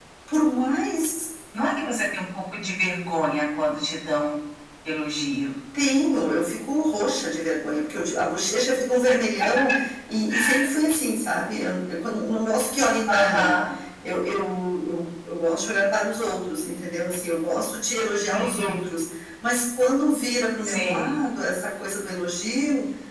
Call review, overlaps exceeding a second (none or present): none